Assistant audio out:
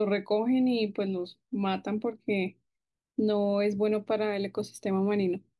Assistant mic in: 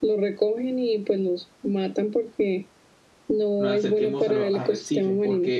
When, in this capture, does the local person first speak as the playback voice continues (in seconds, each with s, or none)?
3.6 s